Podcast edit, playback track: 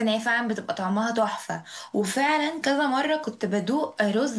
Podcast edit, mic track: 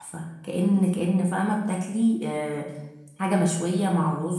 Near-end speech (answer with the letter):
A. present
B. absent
A